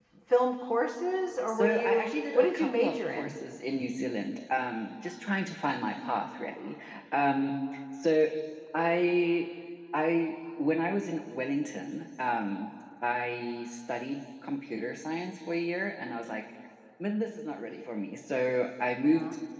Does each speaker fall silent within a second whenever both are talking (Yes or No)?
No